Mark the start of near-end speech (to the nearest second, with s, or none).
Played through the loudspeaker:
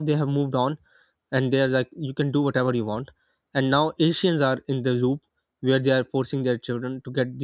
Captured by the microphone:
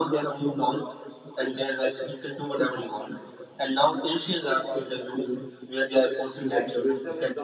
6 s